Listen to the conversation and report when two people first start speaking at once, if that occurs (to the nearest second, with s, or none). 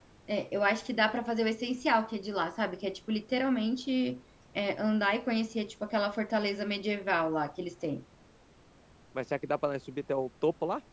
none